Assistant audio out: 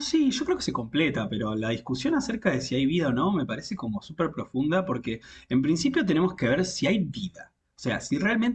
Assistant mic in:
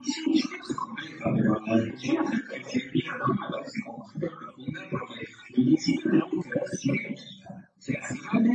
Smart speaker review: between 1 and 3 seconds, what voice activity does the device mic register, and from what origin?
echo only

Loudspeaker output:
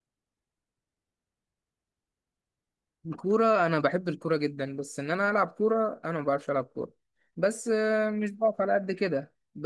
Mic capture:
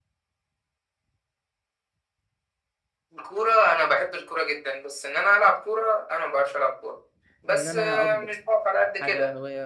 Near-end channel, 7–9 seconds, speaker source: both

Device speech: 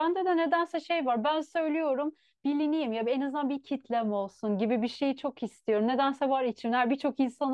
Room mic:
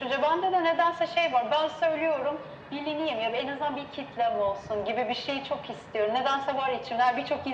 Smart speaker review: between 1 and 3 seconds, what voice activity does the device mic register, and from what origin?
echo only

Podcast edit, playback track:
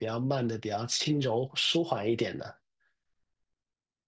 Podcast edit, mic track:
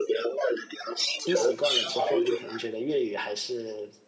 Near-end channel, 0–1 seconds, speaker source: echo only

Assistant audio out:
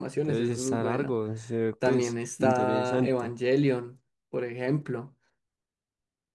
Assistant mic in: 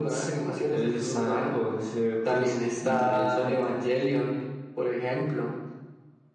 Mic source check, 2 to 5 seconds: echo only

